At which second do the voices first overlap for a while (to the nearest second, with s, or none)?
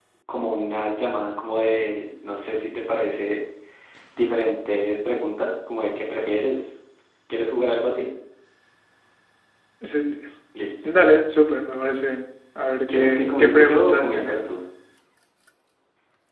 13 s